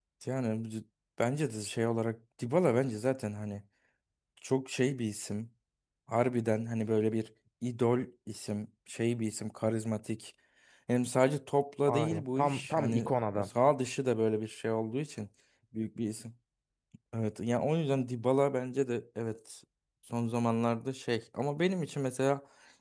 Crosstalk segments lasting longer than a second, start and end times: 11.9-13.5

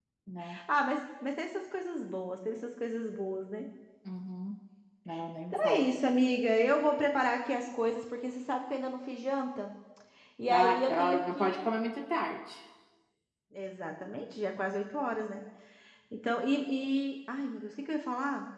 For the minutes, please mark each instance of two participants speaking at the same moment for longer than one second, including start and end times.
10.5-11.7

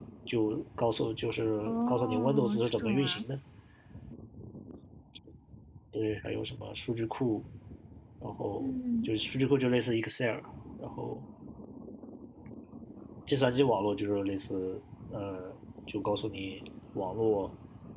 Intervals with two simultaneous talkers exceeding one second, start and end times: 1.6-3.2

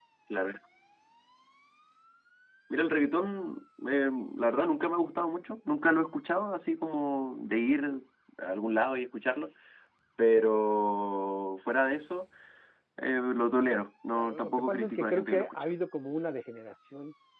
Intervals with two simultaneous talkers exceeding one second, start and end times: 14.2-15.6

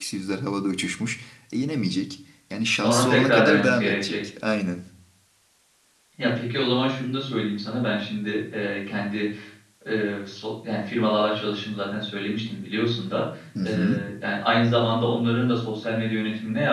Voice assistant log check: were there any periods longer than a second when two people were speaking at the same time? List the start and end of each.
2.8-4.2

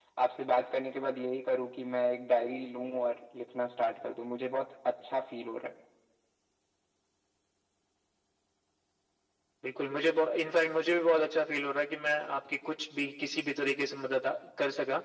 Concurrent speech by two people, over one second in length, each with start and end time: none

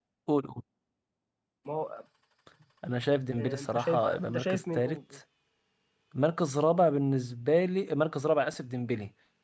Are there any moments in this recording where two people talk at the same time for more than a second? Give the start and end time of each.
3.4-5.0

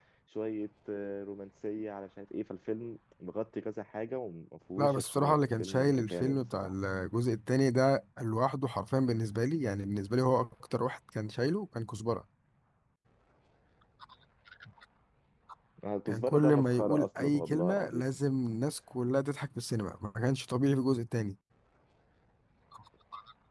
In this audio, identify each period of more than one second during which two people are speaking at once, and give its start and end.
4.8-6.7, 16.1-18.0

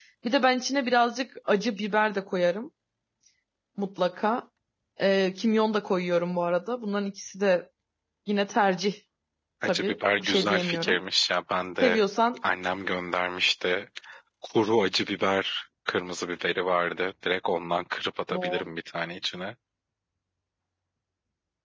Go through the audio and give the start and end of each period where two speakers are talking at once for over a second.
9.6-11.0

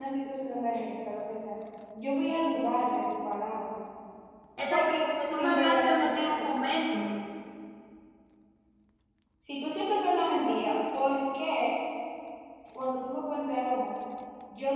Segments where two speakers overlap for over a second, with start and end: 4.7-6.5

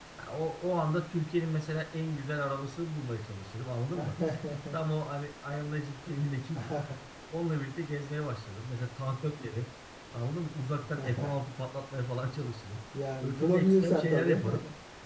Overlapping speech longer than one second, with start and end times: 13.2-14.4

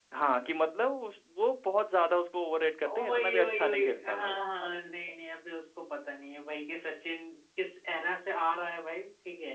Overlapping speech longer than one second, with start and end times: 3.0-4.4

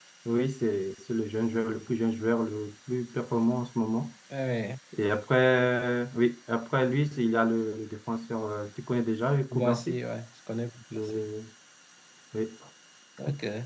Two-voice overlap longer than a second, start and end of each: none

